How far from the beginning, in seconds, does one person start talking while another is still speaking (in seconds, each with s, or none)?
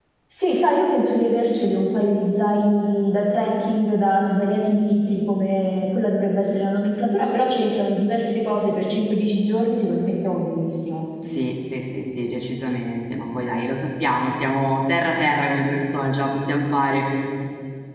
none